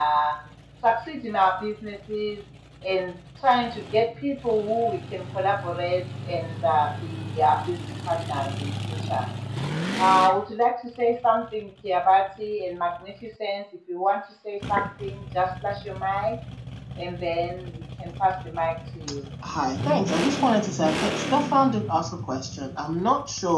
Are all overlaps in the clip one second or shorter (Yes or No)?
Yes